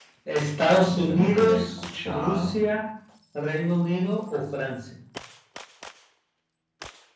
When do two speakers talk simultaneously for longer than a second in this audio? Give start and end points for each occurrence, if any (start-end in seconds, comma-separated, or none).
1.0-2.5